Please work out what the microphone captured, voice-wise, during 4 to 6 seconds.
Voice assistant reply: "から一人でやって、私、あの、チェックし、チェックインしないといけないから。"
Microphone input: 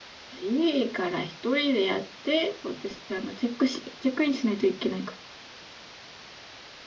echo only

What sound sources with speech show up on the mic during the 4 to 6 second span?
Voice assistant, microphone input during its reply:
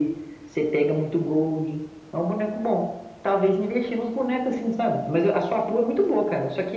echo only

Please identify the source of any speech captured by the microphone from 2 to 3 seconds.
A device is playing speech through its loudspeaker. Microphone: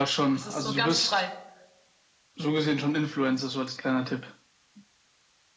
echo only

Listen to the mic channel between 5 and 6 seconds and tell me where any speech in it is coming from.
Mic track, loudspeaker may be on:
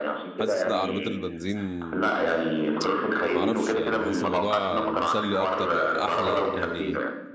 both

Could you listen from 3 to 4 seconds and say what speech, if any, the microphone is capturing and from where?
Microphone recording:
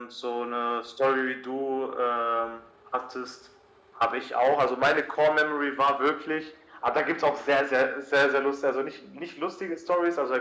echo only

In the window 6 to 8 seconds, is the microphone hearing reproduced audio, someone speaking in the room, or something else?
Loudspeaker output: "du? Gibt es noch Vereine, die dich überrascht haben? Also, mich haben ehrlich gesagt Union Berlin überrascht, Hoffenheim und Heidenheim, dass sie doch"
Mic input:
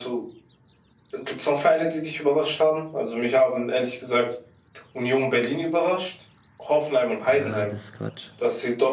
both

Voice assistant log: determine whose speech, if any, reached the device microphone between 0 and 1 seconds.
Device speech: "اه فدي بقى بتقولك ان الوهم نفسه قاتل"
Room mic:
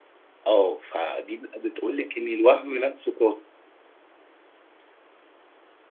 echo only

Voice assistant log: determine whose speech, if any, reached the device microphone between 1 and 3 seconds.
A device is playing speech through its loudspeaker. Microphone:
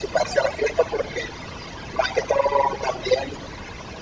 echo only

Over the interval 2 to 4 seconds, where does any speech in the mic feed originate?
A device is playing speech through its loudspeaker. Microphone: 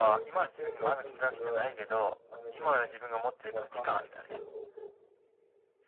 both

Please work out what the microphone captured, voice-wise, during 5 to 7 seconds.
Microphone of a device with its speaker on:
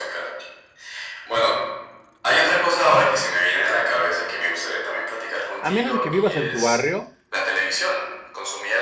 both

